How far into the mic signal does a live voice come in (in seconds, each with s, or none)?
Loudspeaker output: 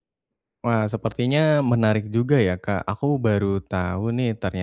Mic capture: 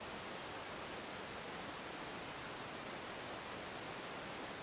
none